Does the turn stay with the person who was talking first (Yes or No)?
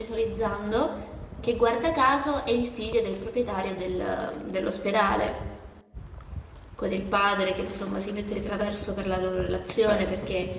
Yes